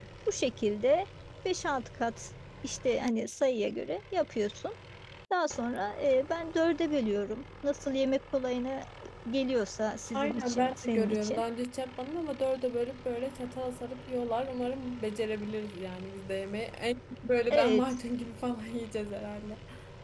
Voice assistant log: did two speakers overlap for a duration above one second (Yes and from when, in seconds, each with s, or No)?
Yes, from 10.1 s